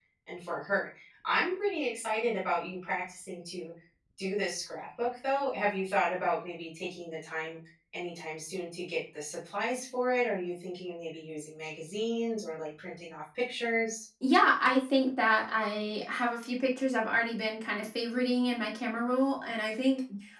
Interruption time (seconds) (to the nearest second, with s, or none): none